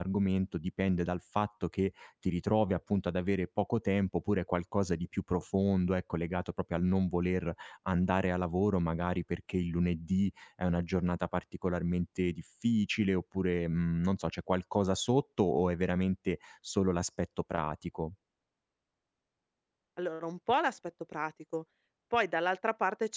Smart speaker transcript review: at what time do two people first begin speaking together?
none

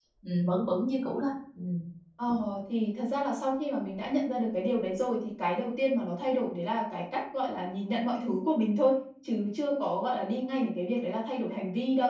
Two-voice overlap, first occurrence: none

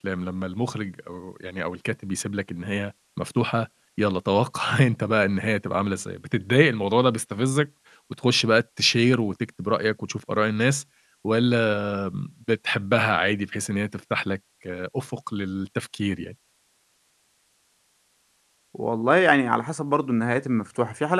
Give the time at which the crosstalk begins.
none

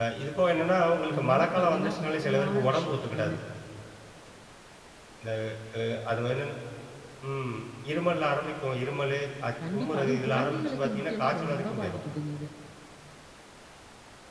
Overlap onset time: 1.1 s

